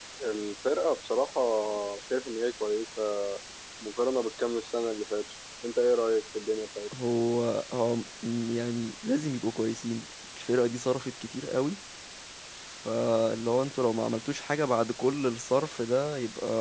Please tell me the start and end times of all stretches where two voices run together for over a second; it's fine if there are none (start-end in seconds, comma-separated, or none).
none